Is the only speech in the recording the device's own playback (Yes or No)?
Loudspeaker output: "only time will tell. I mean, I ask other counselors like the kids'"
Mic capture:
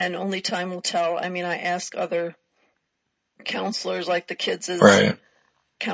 No